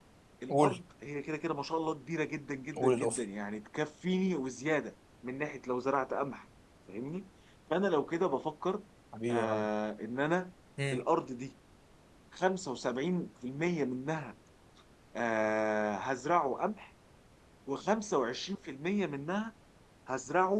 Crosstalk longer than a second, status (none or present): none